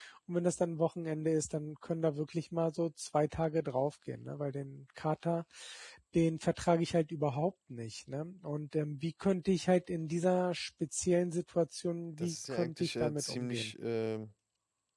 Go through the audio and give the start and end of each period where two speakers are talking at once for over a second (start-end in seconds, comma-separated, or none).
12.2-13.7